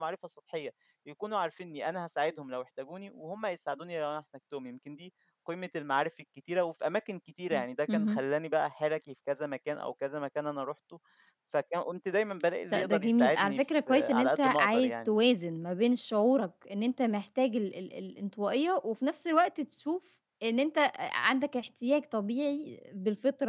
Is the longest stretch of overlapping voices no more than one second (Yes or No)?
No